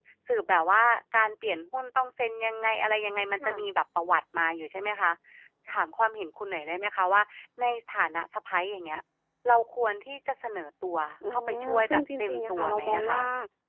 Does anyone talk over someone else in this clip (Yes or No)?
Yes